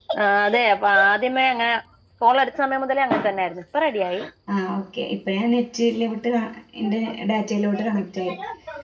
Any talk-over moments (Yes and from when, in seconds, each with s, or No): No